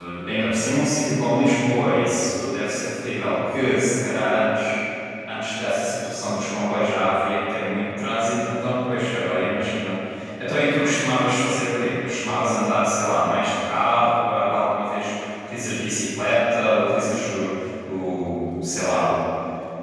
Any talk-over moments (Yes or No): No